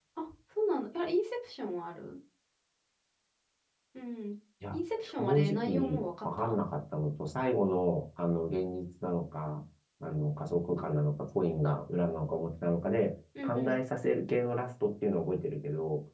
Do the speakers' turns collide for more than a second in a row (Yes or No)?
Yes